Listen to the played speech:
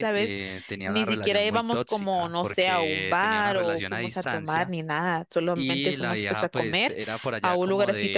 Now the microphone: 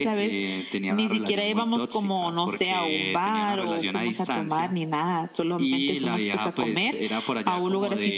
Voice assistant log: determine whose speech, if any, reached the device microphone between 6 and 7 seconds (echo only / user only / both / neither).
echo only